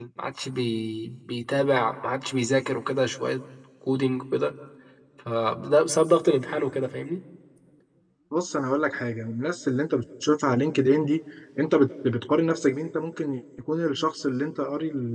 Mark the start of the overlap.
none

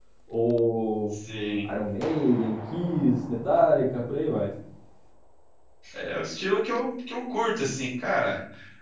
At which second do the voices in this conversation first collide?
none

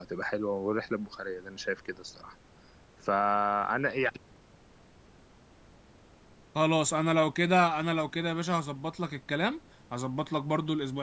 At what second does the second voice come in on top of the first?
none

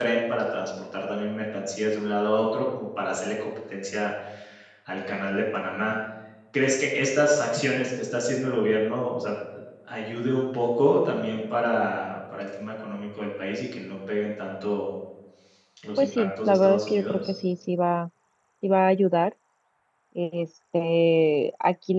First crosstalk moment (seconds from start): 16.0 s

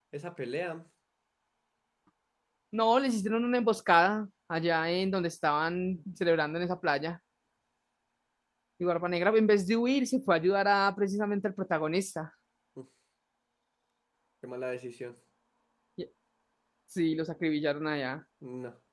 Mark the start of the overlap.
none

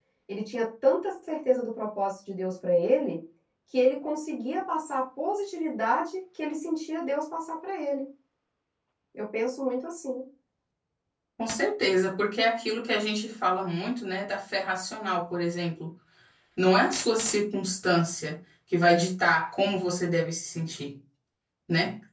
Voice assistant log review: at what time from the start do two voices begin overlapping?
none

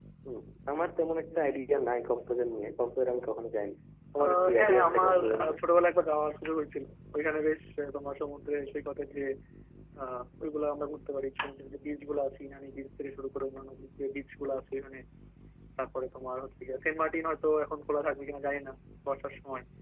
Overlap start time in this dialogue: 4.2 s

